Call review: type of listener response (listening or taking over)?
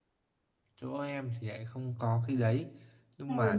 listening